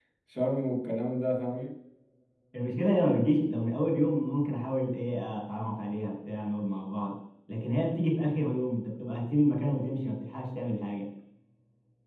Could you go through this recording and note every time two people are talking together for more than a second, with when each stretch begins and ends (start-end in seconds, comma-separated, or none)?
none